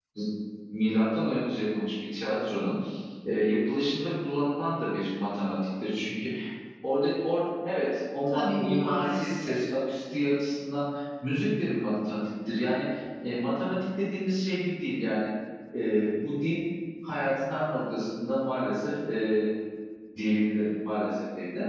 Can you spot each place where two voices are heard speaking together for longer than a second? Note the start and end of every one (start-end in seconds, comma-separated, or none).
8.3-9.6